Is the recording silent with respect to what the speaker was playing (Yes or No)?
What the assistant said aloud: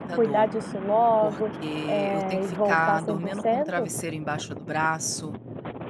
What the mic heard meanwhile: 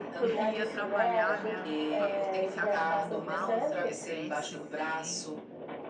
No